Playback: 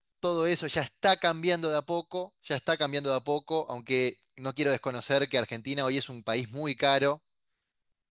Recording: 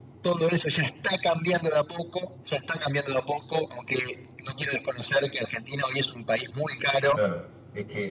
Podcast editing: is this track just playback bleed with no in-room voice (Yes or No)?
No